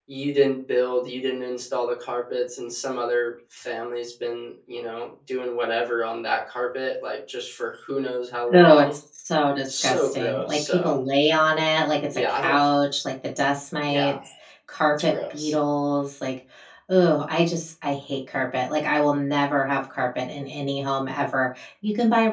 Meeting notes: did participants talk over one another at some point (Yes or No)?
Yes